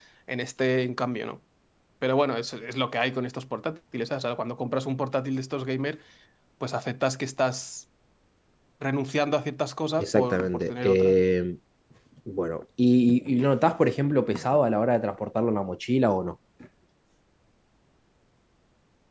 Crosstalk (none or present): present